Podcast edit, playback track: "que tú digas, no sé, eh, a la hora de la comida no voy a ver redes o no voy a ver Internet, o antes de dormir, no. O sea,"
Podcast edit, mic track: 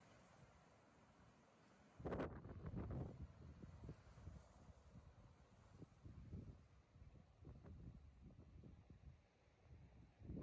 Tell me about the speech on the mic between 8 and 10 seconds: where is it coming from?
neither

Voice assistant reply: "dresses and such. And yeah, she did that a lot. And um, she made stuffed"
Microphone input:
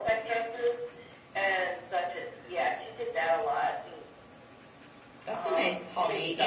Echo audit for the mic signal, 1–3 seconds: echo only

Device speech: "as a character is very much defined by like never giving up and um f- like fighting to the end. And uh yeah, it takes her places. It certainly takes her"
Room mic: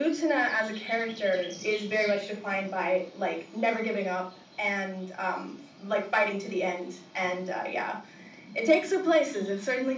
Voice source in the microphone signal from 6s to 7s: echo only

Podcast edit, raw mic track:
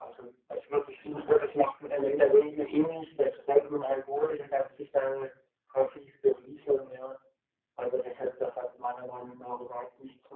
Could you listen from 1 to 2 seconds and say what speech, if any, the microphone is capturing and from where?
echo only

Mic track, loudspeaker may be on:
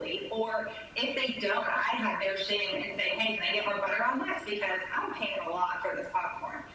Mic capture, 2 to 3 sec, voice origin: echo only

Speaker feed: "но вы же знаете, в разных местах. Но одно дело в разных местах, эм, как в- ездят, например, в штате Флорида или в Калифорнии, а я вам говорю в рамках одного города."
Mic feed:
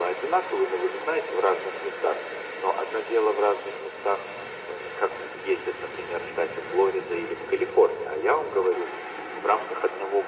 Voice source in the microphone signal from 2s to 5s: echo only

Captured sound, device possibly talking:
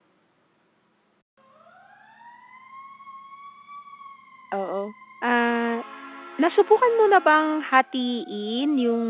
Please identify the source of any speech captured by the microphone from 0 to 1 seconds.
neither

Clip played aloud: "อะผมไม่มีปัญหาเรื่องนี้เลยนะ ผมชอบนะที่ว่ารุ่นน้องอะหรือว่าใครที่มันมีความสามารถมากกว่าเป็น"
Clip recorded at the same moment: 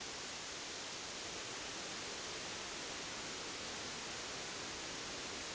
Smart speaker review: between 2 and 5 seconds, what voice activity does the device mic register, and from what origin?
neither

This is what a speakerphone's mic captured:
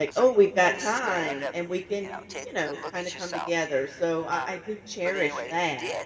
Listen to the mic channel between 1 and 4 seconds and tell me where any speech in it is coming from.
both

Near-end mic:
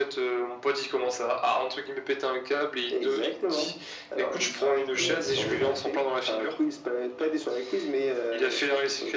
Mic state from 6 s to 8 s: echo only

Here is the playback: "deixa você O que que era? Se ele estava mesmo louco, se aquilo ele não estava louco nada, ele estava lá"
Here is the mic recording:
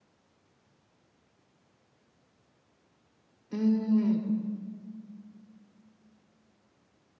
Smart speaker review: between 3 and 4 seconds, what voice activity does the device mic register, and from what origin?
user only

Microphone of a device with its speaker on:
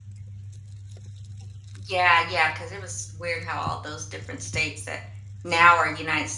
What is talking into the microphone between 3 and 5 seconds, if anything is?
user only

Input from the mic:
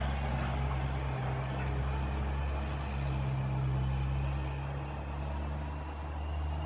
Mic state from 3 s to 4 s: neither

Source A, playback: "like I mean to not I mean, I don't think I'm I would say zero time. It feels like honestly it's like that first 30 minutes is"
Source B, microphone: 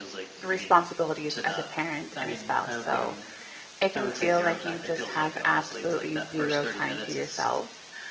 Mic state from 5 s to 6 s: both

